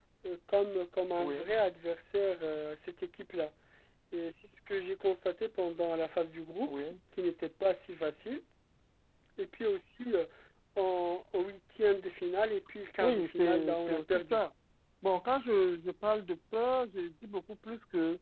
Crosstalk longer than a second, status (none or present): present